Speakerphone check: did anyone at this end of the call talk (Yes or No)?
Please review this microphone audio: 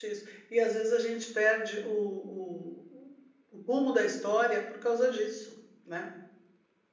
Yes